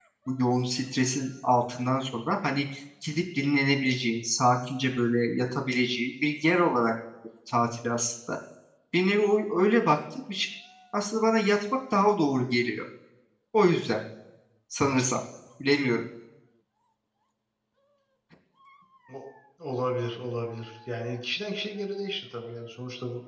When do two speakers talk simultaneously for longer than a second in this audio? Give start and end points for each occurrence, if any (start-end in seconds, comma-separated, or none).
none